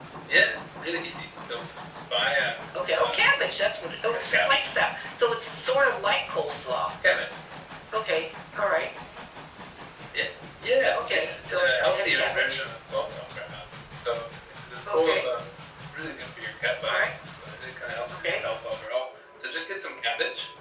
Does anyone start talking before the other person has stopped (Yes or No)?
Yes